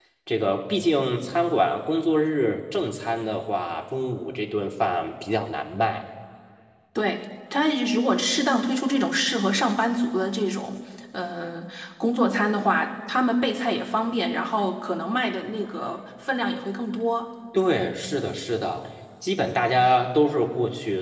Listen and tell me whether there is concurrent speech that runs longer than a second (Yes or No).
No